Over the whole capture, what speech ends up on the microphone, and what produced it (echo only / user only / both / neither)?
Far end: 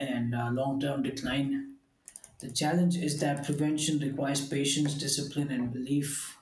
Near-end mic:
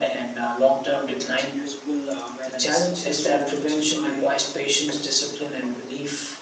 both